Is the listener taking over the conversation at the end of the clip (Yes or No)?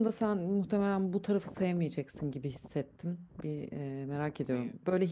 No